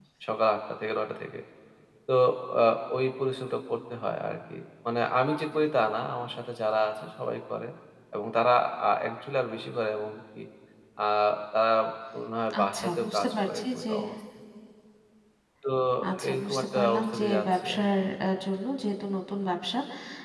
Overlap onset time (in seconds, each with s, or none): 12.6 s